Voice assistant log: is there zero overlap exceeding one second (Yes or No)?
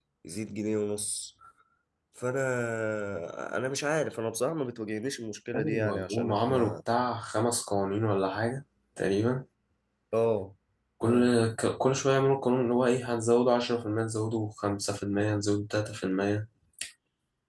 No